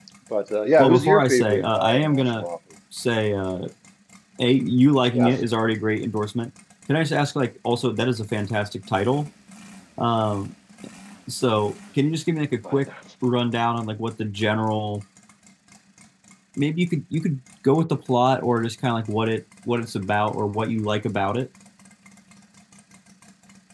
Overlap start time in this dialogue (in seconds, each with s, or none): 0.8 s